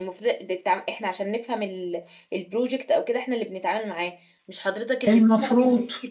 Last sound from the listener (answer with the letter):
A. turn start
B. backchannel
B